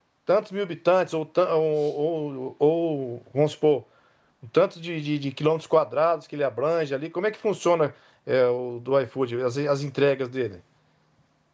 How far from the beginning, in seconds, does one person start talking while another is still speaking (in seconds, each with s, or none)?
none